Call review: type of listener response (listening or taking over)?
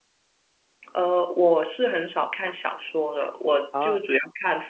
listening